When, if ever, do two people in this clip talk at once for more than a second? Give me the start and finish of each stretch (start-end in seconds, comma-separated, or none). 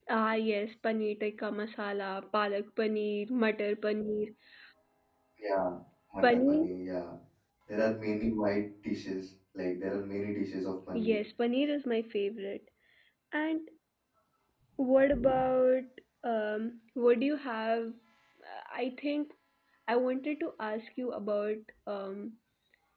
none